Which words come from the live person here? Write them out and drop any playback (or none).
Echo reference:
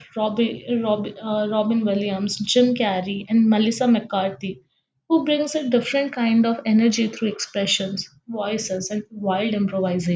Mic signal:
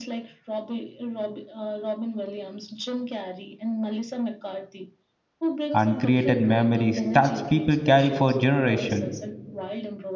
and created memories that people carry for generations.